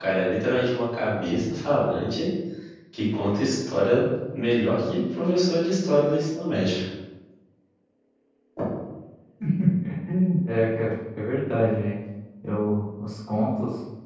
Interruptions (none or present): none